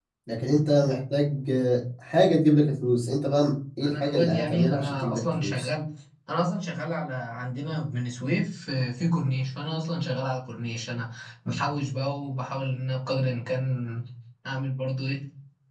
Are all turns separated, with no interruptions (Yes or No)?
No